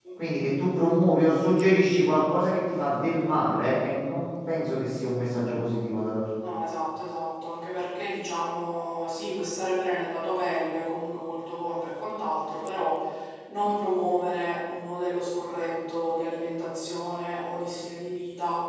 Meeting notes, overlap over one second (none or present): none